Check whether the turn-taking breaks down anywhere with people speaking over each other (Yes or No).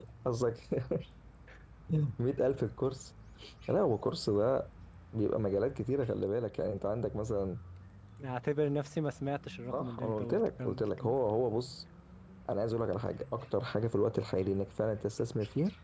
Yes